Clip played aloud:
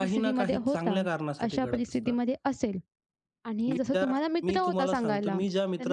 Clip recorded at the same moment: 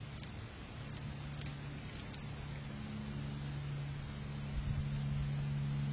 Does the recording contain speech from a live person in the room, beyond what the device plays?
No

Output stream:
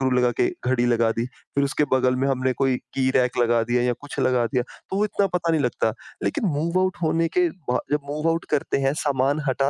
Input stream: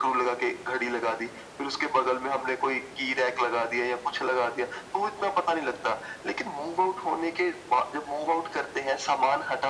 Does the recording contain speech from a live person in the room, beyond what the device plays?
No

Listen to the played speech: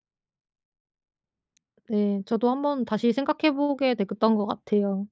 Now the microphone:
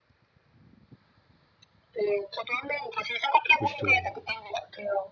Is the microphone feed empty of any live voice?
No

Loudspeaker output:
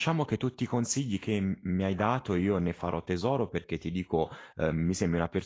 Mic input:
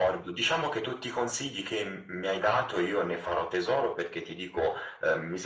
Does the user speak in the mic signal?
No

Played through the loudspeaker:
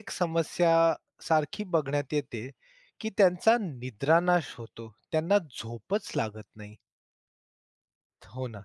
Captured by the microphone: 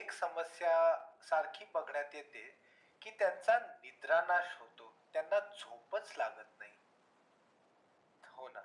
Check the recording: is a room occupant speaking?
No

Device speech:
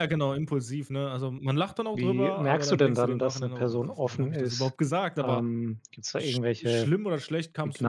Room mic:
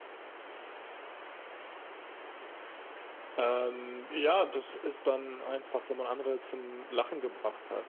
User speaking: Yes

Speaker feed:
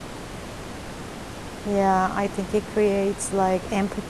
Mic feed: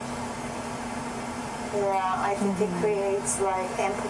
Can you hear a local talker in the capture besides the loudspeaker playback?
Yes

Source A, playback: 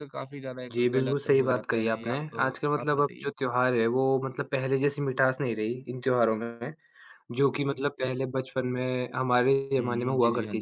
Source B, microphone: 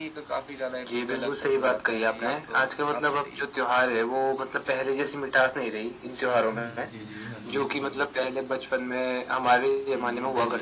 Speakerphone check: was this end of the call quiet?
No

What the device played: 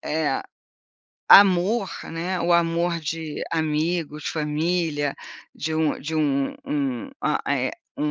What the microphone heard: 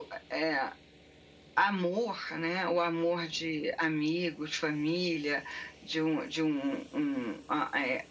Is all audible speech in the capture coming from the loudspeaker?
Yes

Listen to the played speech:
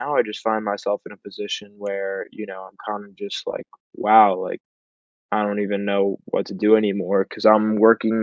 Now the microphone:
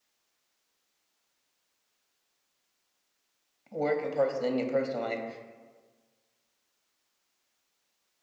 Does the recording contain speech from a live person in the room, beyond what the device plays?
Yes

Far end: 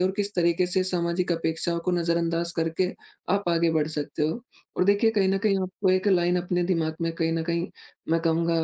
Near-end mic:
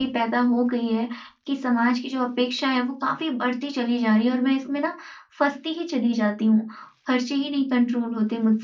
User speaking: Yes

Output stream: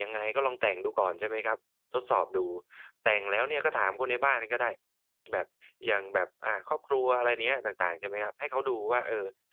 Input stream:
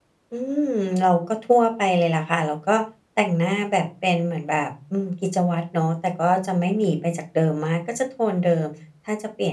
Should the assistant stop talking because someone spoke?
Yes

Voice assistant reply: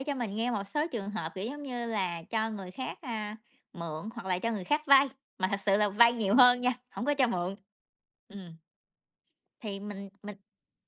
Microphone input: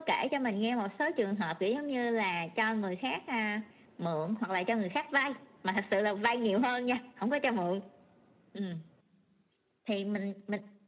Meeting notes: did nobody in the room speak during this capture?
Yes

